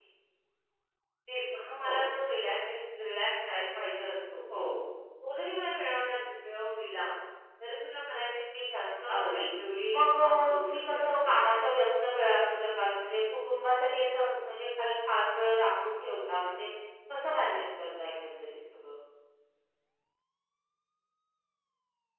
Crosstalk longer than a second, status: present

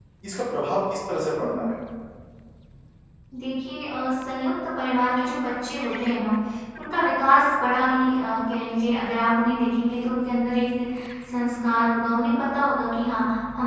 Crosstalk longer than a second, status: none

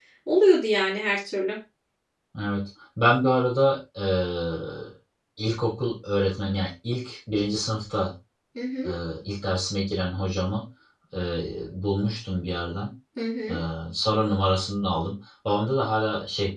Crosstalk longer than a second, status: none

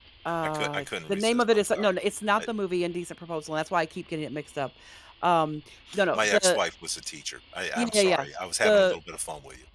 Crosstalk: present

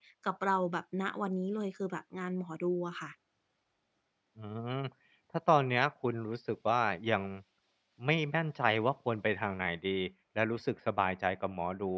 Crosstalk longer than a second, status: none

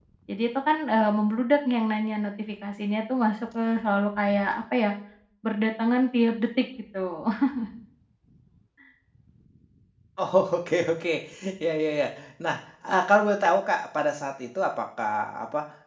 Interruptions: none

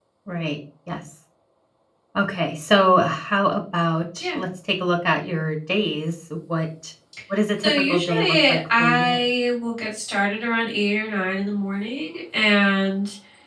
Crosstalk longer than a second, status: present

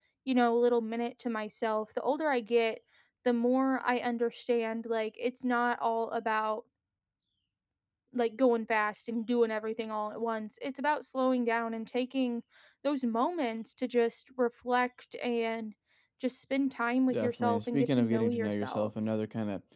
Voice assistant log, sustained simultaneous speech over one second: present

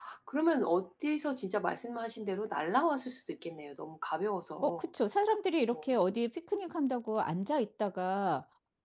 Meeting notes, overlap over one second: none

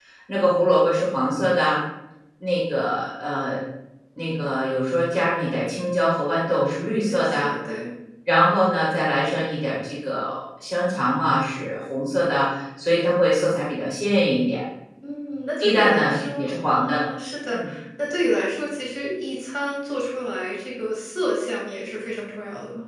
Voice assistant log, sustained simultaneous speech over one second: present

